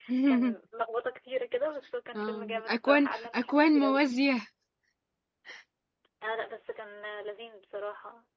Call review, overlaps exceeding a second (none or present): present